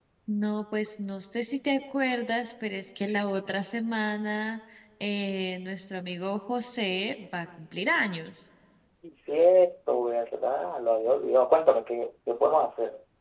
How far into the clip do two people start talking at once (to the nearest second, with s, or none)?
none